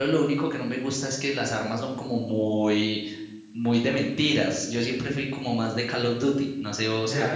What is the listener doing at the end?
taking over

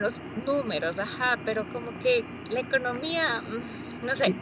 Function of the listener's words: taking over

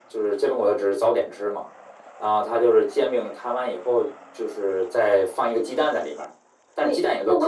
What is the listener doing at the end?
taking over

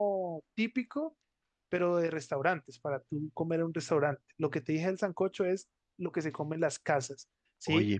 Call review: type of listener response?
listening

